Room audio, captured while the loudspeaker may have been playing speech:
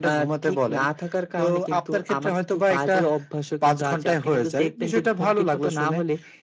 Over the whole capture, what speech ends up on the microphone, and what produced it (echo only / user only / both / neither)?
echo only